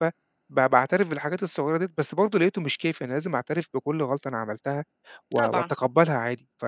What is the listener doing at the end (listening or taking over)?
listening